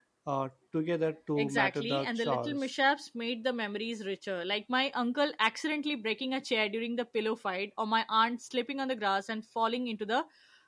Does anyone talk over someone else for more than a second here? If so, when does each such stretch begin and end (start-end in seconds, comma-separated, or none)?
1.4-2.7